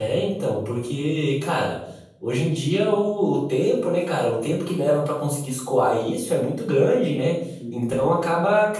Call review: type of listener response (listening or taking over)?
listening